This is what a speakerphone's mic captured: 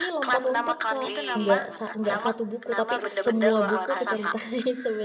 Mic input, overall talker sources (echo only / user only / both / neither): both